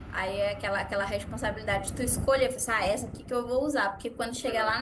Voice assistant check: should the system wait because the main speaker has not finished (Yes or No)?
Yes